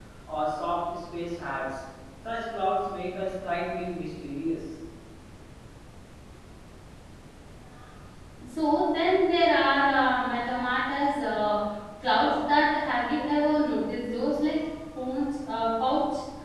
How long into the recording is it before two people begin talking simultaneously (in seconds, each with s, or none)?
none